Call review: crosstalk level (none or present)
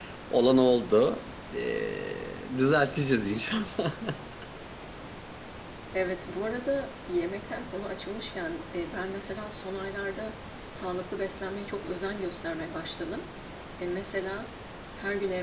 none